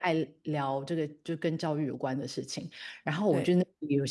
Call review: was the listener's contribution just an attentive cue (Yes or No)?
Yes